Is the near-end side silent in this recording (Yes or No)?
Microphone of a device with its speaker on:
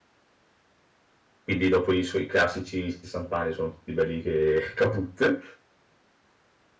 No